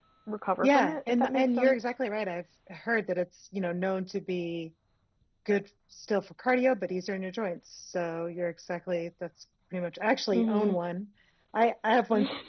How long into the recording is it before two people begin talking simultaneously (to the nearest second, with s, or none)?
1 s